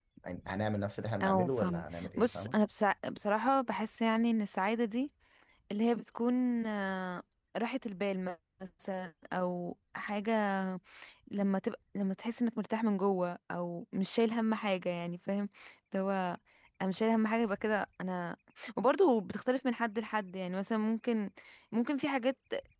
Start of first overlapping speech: 1.2 s

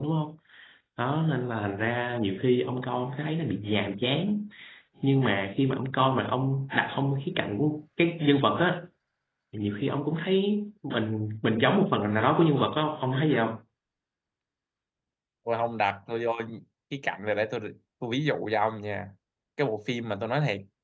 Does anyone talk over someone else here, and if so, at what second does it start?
none

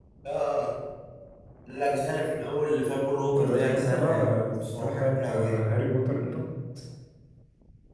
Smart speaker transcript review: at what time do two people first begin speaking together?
3.4 s

